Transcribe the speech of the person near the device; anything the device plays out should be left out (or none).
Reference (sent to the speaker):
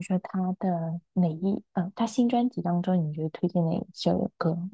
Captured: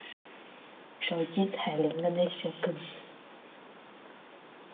手机彩铃的那些歌，